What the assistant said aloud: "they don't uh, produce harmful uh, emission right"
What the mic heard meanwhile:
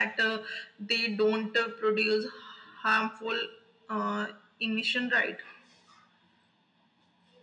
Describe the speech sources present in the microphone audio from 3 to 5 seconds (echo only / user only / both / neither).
echo only